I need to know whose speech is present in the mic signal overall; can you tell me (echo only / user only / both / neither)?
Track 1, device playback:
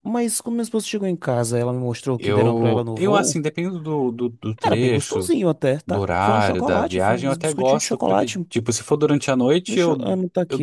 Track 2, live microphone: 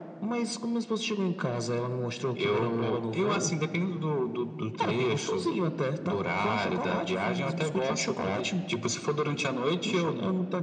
echo only